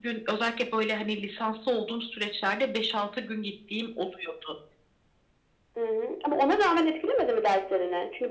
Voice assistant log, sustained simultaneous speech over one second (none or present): none